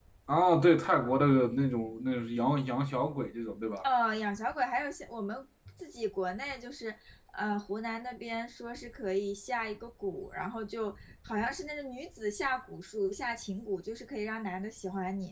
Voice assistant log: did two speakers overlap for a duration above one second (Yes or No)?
No